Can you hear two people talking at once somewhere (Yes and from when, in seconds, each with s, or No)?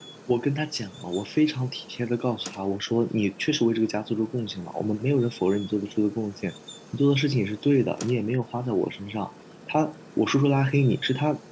No